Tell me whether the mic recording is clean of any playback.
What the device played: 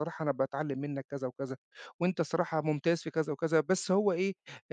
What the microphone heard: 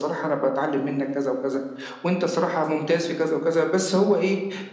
No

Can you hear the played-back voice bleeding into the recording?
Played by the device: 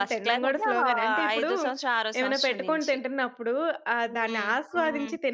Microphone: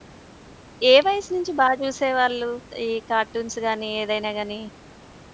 No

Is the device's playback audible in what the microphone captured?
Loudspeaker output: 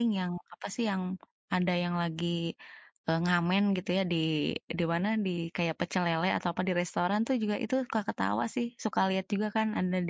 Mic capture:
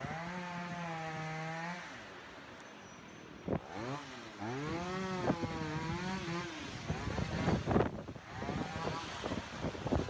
No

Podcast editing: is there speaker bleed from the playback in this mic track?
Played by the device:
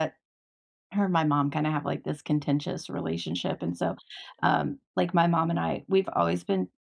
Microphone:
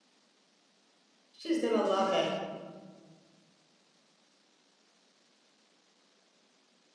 No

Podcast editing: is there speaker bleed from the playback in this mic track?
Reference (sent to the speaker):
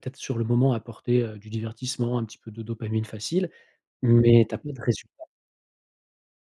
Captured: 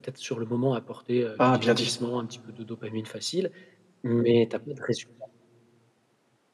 Yes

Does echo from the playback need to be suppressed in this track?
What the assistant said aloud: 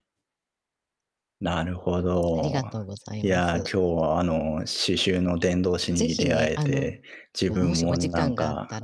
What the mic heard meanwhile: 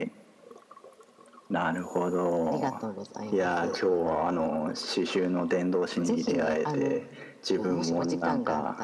Yes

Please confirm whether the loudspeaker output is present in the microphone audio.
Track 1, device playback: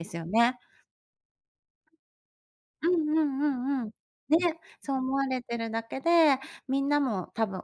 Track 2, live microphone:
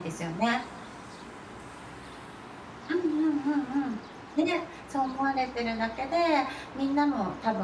Yes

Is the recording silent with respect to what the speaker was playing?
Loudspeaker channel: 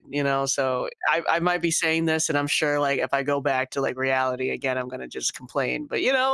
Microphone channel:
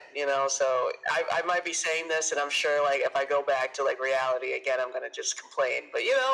No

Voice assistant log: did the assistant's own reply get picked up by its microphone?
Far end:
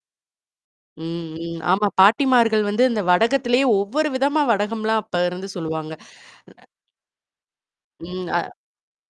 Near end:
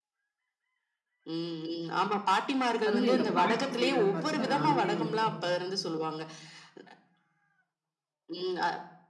Yes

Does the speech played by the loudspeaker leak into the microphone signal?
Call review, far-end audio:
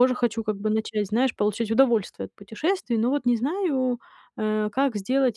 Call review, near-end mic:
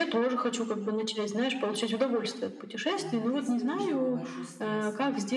Yes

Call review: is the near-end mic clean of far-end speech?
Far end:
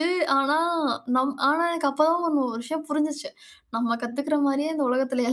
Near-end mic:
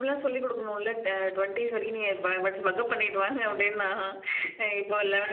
Yes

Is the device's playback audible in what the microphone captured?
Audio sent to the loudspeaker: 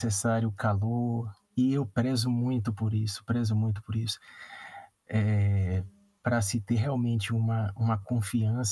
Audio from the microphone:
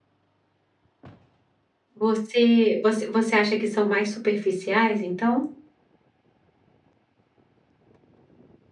No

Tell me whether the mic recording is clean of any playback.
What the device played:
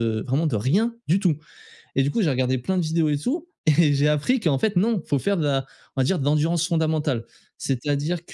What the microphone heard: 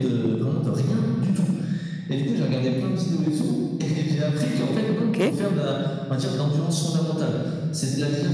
No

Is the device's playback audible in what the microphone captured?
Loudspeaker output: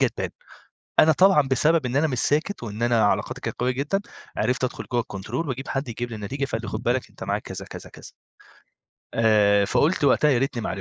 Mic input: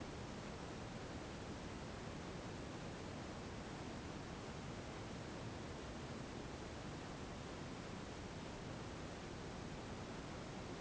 No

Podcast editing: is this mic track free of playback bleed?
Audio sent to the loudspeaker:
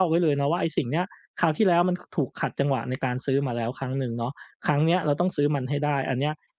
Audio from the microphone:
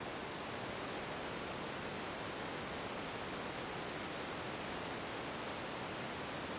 Yes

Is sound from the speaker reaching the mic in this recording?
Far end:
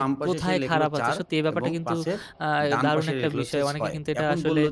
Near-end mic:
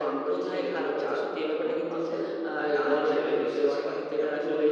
Yes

